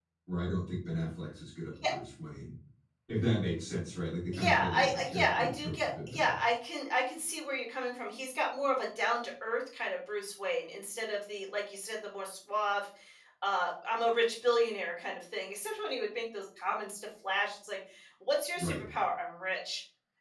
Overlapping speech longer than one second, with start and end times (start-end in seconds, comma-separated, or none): 4.3-6.4